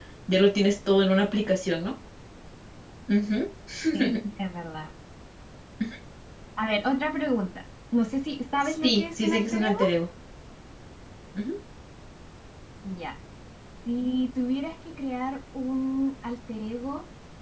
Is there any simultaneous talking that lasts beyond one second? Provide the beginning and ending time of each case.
8.6-9.8

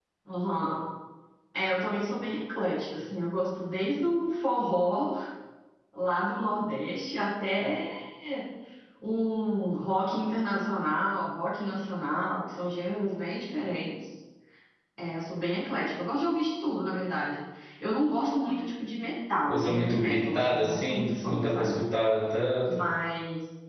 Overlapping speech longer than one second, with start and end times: 19.5-21.8

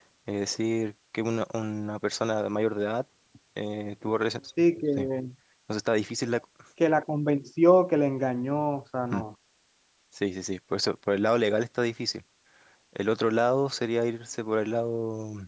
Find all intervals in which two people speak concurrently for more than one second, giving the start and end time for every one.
none

